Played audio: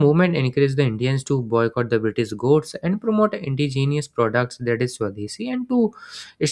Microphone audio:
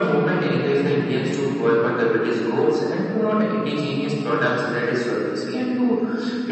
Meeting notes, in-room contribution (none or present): none